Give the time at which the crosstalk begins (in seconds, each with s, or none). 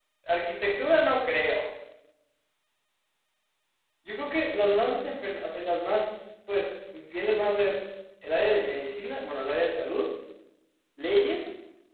none